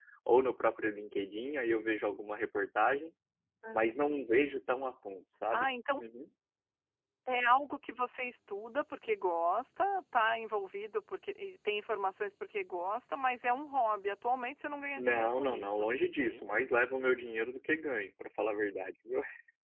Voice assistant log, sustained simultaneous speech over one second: present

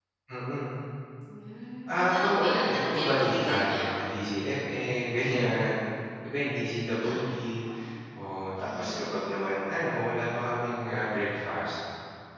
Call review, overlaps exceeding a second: present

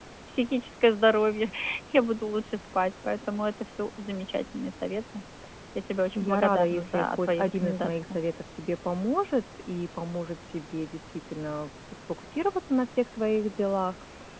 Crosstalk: present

